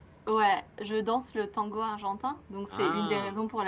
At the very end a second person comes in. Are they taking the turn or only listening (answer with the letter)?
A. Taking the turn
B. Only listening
B